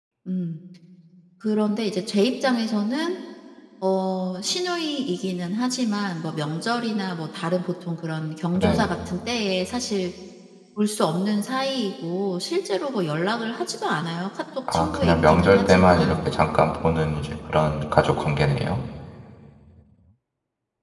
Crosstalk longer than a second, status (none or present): present